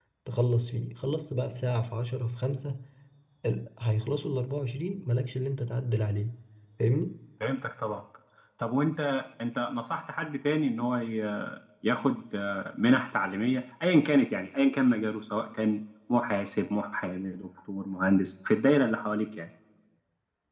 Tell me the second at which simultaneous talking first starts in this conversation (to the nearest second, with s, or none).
none